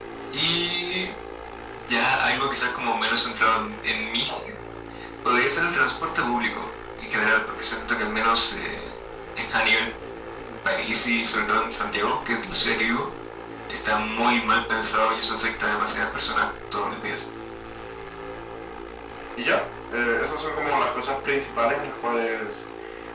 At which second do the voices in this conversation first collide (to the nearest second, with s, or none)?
none